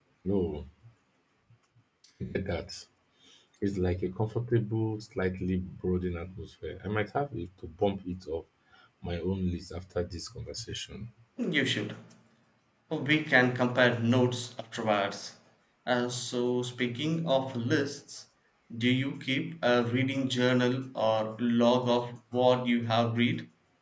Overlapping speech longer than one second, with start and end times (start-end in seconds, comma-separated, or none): none